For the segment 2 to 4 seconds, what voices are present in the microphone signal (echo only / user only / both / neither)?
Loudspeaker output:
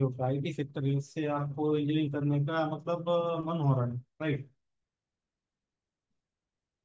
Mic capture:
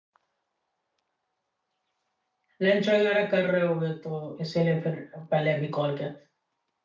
user only